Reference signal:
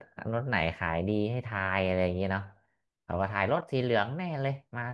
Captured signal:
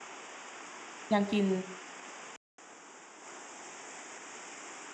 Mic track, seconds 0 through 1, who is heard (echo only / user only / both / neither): neither